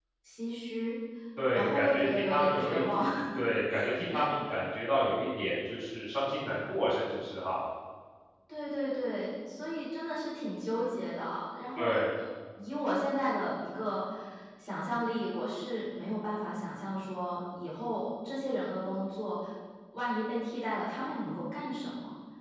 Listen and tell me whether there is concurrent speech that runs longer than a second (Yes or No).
Yes